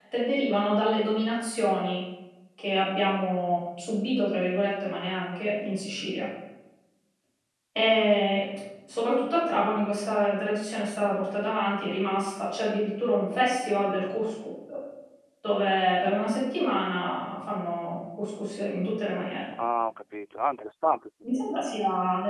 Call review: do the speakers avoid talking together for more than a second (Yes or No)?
Yes